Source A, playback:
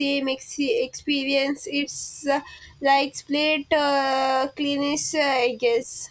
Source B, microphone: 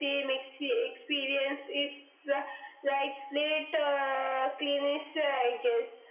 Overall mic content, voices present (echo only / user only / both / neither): echo only